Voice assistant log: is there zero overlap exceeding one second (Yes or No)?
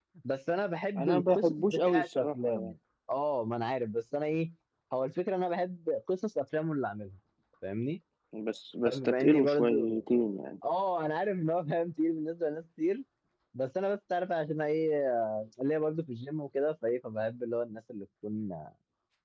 No